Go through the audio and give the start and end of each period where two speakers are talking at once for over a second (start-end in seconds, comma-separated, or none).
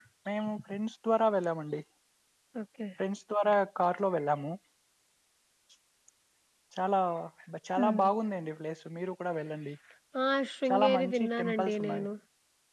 10.7-12.0